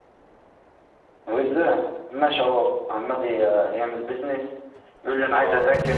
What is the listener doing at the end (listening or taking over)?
listening